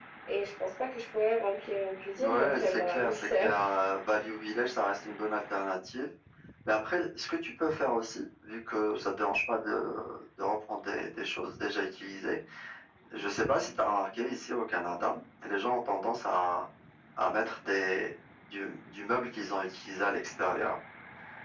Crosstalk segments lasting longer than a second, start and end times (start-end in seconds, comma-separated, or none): 2.2-3.5